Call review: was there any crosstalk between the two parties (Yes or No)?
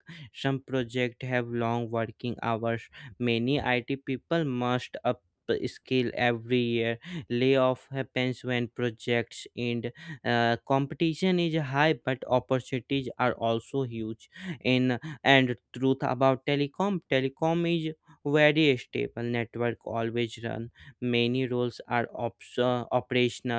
No